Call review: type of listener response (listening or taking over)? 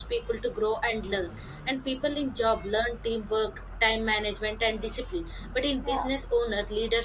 listening